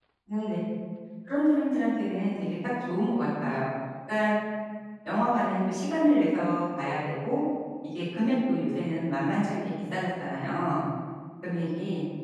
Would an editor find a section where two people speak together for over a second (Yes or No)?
No